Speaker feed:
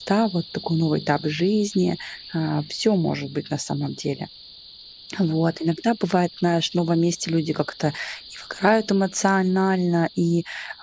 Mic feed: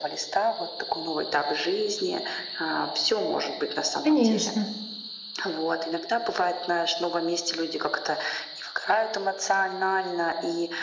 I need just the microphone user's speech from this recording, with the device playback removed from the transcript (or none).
конечно.